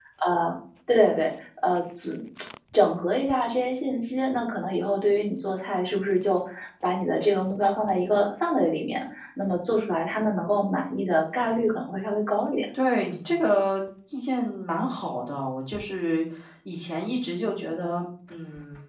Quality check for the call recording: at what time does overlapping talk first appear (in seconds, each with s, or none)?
none